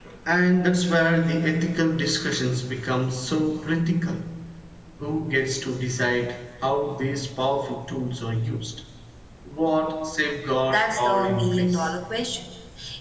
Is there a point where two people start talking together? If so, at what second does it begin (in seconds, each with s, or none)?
10.7 s